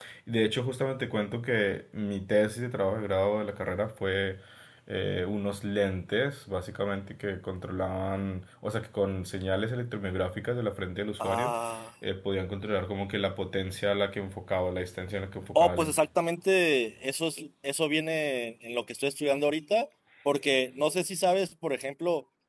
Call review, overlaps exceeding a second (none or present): none